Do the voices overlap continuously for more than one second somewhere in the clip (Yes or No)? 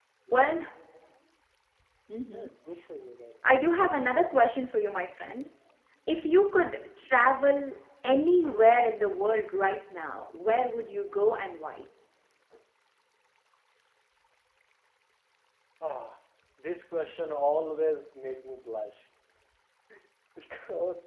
No